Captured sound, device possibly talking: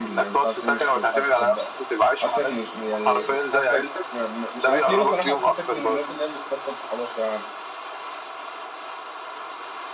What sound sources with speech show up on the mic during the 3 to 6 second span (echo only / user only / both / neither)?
both